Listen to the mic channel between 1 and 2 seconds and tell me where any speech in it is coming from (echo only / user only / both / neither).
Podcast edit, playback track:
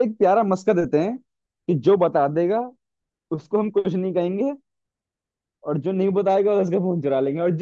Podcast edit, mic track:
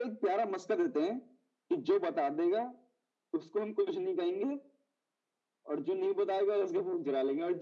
echo only